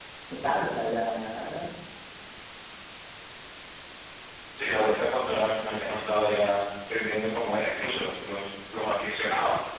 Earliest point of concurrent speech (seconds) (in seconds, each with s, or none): none